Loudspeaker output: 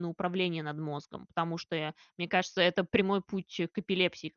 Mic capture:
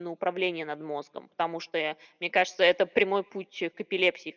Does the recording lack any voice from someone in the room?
Yes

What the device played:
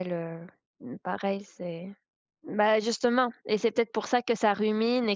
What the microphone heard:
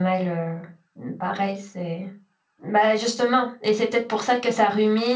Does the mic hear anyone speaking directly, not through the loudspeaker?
No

